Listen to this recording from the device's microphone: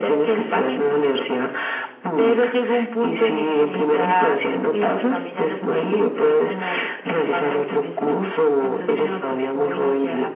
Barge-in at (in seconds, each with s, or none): none